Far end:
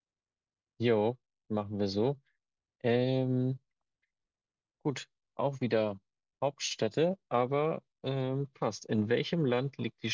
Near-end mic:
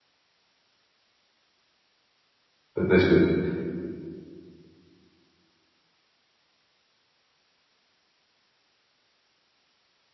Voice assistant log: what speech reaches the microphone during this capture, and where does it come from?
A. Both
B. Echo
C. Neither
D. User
D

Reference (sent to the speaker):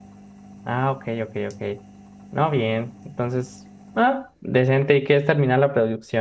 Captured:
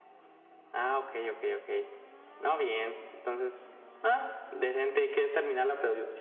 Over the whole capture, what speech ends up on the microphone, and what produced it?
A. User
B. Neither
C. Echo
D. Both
C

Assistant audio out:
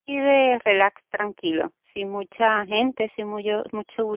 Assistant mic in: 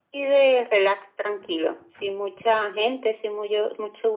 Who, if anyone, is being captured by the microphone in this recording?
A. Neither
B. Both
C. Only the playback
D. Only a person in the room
C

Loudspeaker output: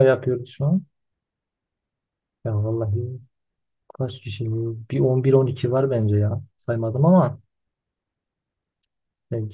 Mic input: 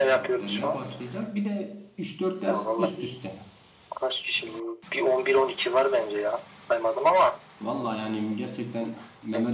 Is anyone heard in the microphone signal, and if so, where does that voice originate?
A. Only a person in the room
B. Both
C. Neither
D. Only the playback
B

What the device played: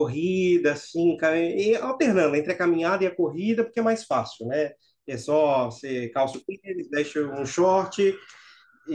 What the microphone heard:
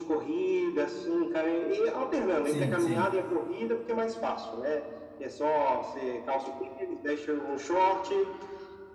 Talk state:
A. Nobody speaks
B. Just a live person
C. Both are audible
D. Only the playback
C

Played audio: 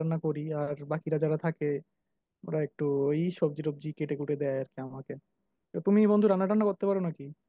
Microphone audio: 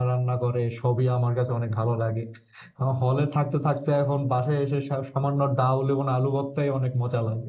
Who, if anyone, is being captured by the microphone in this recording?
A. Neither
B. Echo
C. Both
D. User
D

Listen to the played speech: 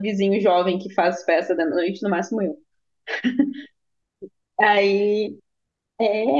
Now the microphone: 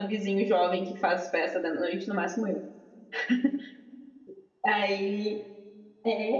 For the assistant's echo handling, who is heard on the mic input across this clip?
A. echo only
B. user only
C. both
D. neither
A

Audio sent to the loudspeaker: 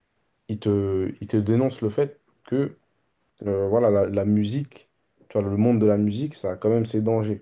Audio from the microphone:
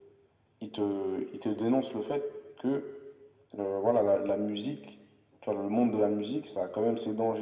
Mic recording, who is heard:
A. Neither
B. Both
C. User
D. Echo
D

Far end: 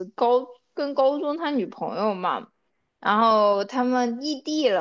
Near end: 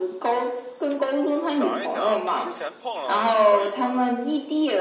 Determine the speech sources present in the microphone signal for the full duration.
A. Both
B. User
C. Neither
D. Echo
A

